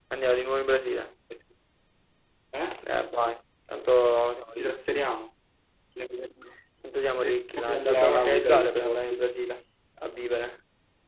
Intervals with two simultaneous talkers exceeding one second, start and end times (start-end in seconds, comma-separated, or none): 7.2-9.2